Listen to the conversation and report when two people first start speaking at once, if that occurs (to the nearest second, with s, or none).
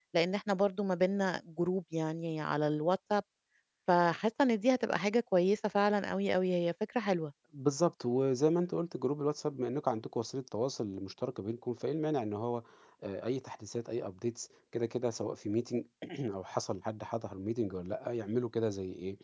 none